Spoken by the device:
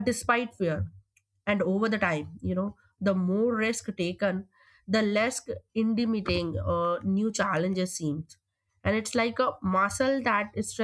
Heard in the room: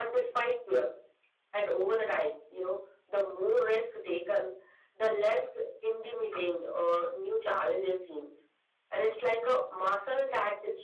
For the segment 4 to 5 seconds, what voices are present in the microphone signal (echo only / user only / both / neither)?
echo only